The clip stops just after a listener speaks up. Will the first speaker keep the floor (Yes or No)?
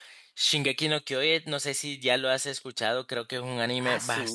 No